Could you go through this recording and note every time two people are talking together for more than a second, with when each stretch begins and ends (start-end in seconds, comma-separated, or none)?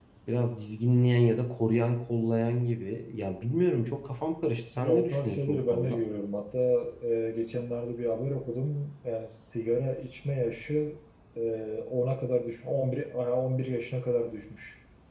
4.8-6.0